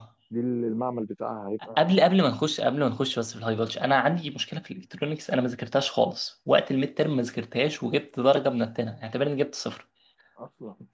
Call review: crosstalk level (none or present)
none